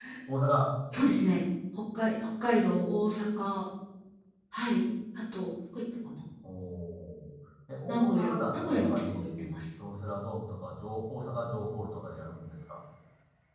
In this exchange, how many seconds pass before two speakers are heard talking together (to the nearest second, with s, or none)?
8 s